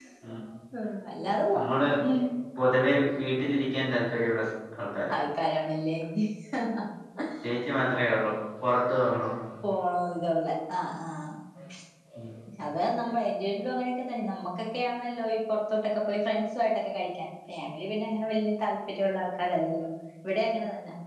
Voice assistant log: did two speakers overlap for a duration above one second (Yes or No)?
No